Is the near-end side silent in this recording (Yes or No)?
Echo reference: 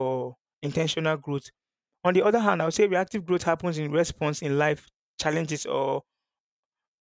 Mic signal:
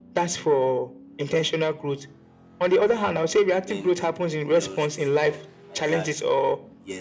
No